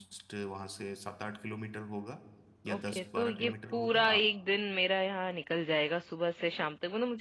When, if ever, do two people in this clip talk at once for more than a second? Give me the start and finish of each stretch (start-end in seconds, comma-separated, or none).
2.7-4.2